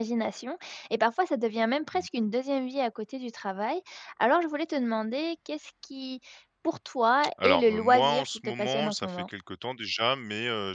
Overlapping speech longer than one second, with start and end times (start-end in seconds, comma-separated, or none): 7.4-9.3